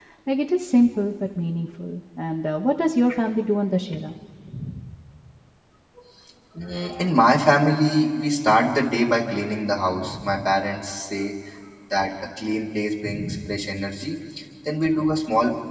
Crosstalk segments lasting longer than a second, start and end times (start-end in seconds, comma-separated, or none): none